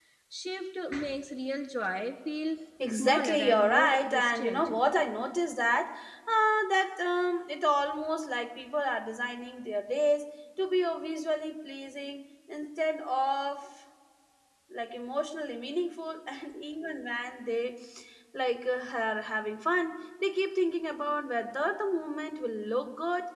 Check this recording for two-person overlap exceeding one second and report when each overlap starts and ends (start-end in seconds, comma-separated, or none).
2.9-4.7